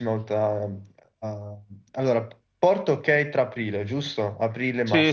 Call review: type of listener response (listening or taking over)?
taking over